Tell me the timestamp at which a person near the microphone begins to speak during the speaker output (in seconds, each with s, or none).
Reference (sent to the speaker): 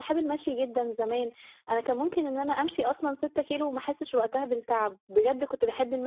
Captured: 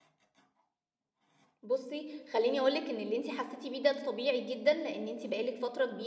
1.6 s